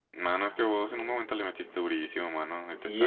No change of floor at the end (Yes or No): No